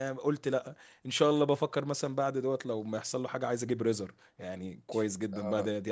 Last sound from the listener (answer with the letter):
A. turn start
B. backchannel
A